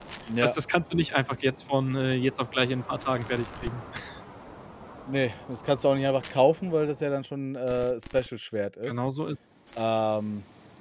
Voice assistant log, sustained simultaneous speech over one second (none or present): none